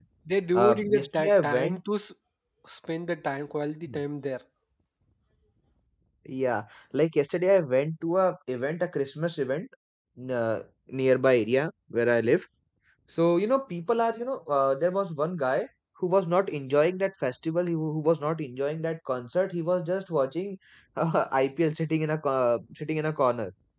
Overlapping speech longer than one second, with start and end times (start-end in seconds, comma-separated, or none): 0.6-1.8